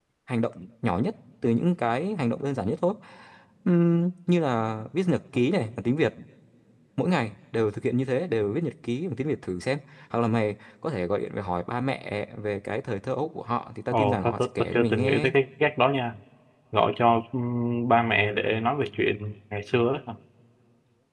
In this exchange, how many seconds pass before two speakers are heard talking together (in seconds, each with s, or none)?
13.9 s